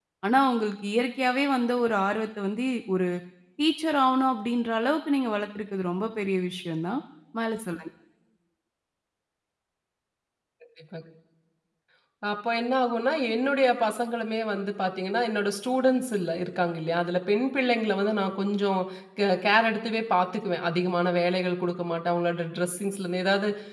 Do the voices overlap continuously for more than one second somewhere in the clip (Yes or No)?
No